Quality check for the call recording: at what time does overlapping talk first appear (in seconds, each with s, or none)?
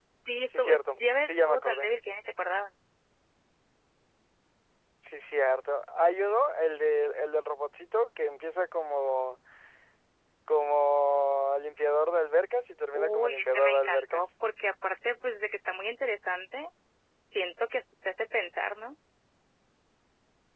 0.6 s